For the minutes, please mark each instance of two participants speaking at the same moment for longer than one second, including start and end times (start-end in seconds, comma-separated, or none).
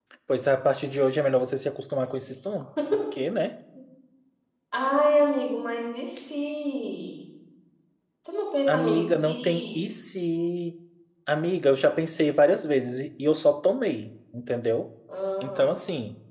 8.7-9.9